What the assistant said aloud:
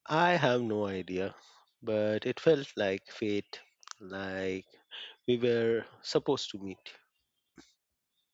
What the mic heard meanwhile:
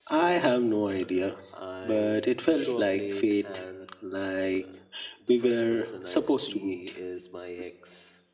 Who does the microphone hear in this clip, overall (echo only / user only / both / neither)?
both